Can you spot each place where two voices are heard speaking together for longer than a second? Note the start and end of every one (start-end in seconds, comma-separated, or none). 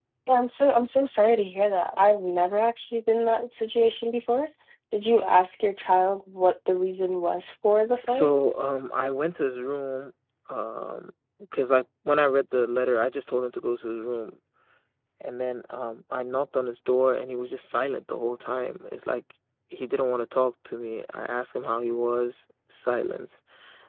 none